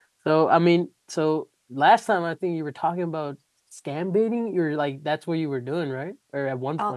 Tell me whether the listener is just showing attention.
No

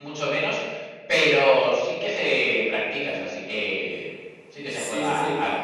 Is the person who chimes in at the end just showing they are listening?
No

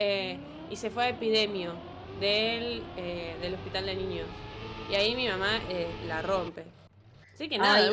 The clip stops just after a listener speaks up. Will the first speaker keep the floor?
No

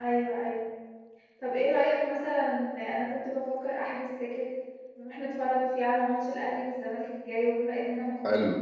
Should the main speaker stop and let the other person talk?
No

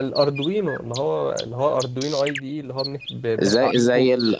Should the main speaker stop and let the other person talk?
Yes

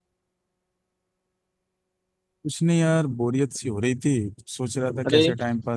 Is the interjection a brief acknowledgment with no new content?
Yes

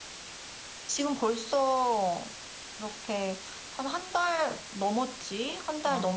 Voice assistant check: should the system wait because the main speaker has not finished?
Yes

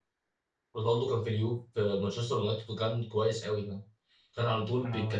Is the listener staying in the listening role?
Yes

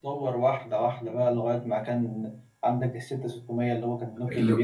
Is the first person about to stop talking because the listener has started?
Yes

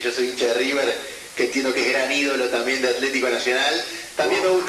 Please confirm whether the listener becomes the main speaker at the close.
No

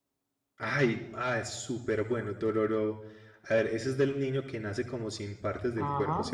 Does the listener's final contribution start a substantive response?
Yes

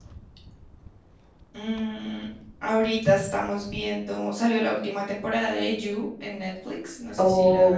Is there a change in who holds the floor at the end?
Yes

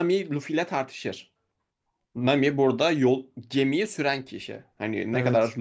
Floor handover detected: No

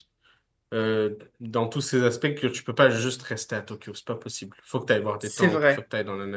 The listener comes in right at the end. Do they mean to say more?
No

